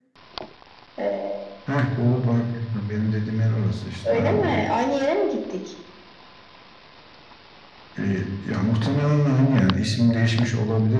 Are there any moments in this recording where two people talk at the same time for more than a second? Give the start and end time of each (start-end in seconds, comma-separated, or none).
none